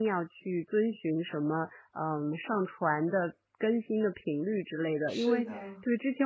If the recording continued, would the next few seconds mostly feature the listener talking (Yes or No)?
No